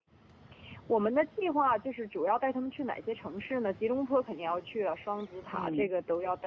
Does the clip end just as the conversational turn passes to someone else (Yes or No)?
No